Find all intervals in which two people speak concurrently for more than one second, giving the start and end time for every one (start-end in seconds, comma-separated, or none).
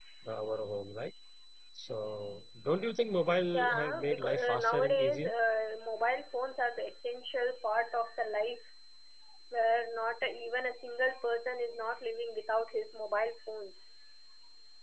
3.5-5.3